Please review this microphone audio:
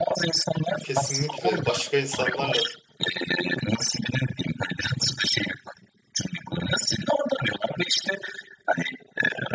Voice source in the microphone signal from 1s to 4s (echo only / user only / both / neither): both